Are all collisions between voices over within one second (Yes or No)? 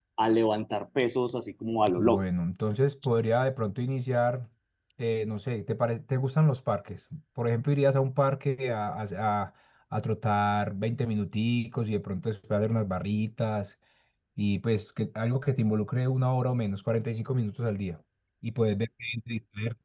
Yes